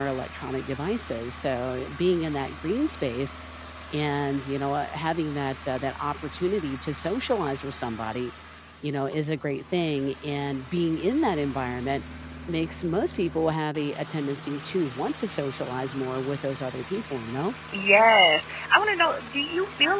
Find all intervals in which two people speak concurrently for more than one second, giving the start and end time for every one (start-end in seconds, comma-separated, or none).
none